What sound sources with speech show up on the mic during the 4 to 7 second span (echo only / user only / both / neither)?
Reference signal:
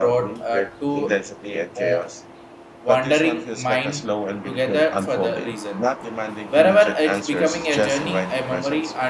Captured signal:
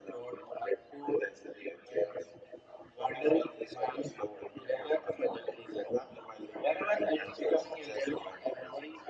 echo only